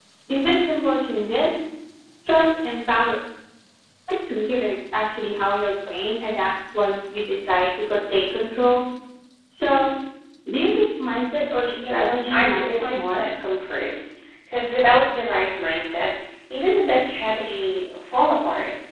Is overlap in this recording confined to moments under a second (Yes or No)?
No